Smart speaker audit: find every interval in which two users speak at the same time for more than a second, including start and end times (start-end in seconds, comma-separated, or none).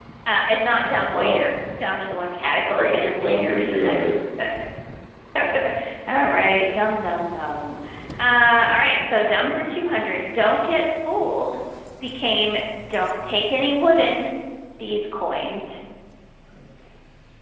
2.8-4.0